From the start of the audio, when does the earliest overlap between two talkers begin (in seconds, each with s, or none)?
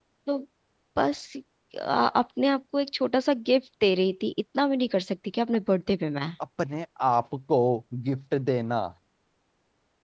none